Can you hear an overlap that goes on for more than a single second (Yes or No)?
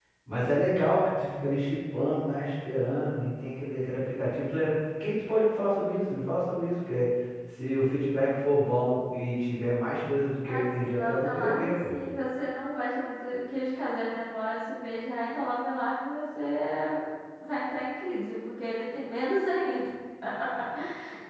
Yes